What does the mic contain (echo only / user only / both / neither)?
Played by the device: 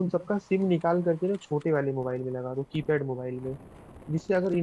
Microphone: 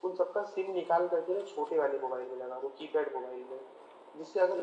echo only